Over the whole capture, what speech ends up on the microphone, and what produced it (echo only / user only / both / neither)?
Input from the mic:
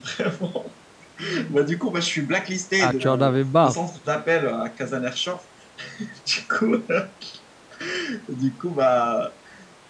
both